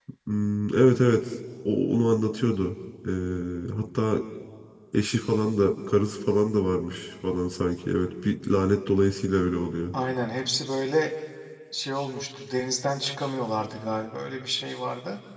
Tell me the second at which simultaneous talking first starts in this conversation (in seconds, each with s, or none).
none